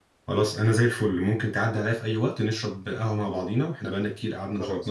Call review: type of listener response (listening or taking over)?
listening